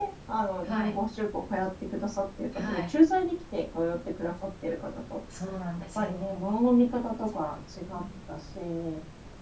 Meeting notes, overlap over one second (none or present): none